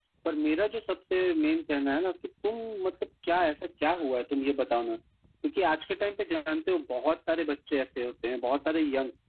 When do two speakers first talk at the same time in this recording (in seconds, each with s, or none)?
none